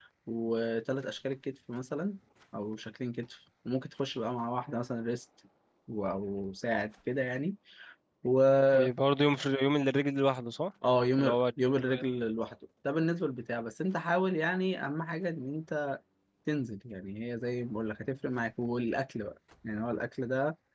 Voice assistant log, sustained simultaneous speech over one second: none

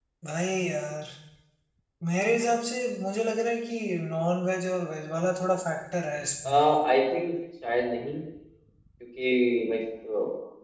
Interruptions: none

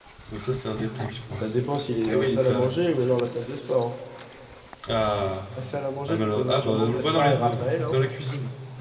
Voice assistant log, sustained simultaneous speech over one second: present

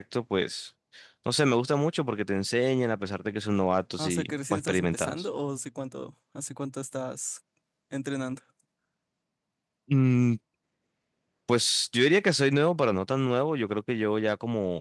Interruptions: present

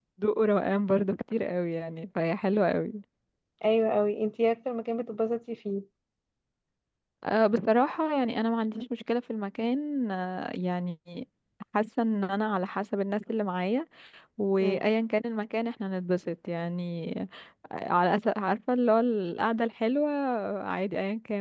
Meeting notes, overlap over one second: none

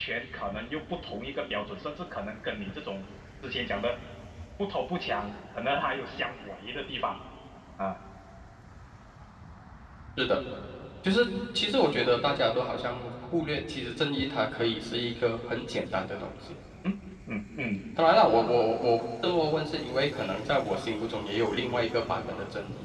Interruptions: none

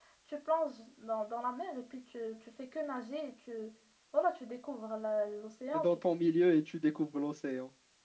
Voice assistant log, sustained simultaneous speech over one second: none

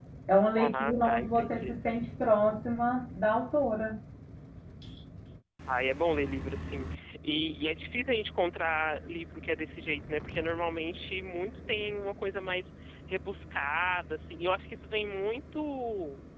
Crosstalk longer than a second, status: present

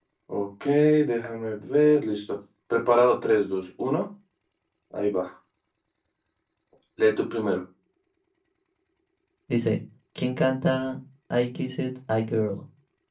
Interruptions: none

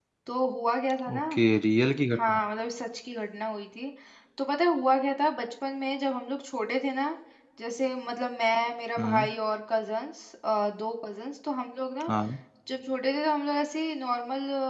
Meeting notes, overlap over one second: none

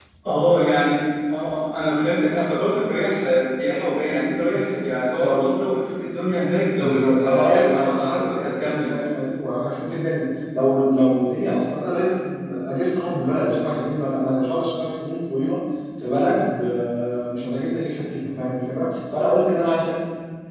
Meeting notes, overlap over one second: present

